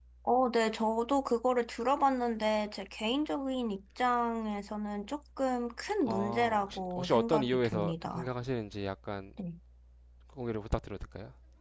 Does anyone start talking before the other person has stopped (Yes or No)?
Yes